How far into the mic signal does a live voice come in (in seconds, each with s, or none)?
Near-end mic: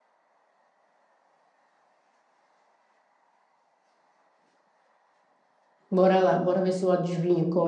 5.9 s